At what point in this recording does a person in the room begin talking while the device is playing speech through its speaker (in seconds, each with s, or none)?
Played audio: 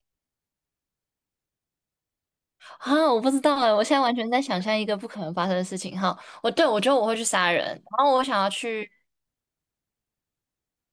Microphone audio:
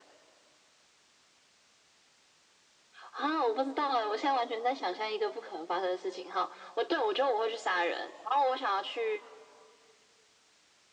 none